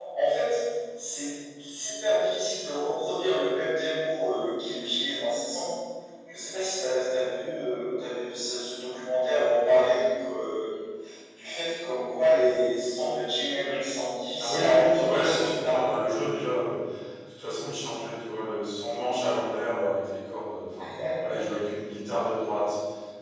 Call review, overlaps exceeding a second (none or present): present